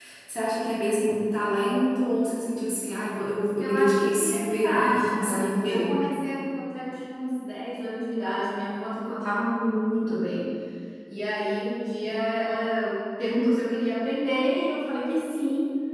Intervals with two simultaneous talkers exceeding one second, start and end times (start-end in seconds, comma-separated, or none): 3.6-5.9